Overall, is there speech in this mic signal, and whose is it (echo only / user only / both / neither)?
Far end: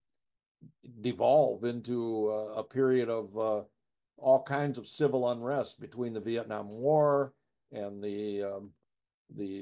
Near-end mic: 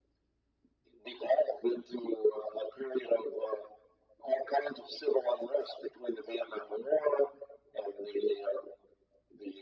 echo only